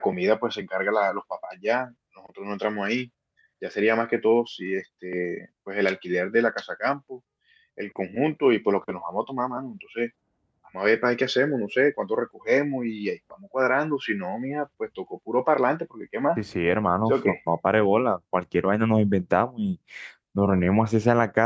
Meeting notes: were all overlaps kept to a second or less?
Yes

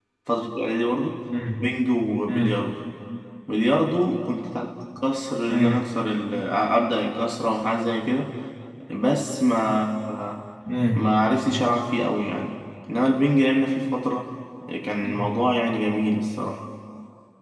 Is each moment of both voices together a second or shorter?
Yes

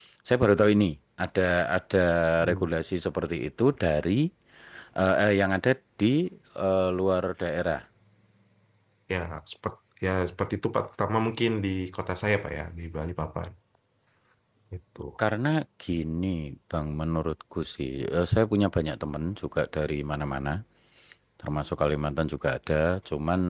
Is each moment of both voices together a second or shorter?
Yes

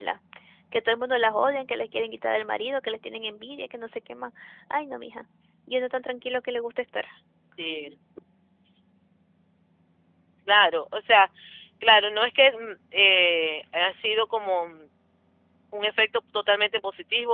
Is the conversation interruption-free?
Yes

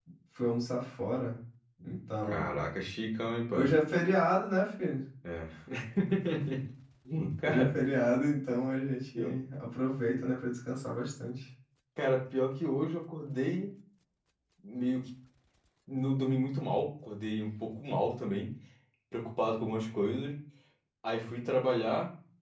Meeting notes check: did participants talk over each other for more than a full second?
No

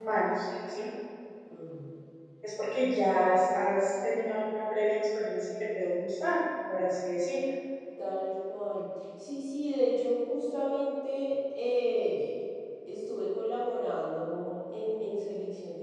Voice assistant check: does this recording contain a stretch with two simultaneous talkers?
No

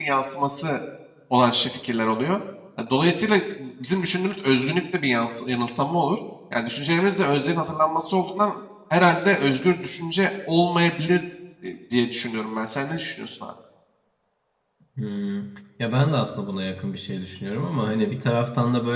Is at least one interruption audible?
No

